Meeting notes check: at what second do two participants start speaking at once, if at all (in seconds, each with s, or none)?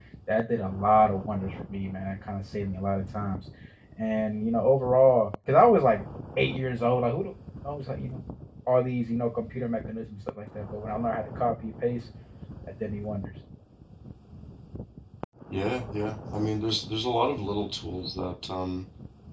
none